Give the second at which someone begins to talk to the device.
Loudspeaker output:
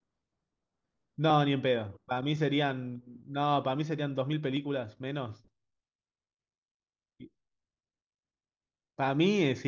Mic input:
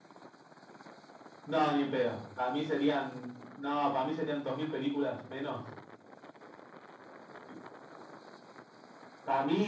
none

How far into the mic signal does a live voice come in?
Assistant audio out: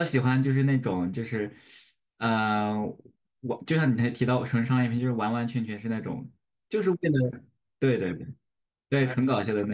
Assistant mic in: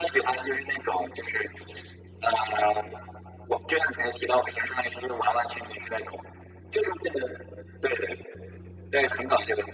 none

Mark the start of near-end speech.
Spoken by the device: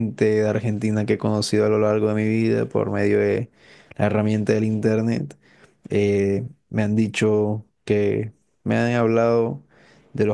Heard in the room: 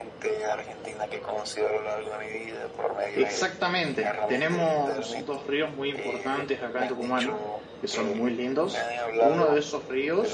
3.1 s

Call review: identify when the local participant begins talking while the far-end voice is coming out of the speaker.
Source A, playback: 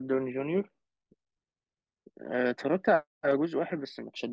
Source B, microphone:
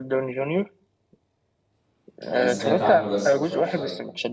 2.3 s

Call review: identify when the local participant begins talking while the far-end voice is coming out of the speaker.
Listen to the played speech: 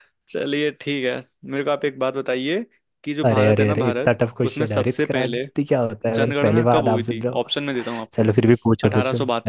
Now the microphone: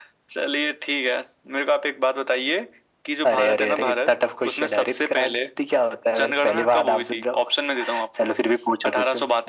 none

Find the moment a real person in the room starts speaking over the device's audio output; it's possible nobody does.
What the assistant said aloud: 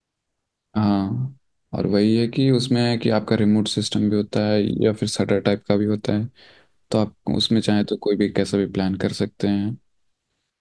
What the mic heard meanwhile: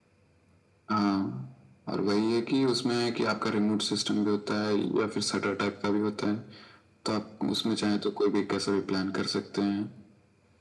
none

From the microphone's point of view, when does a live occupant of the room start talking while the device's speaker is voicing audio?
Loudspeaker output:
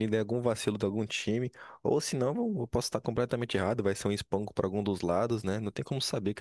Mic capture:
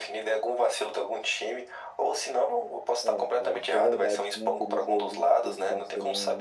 3.0 s

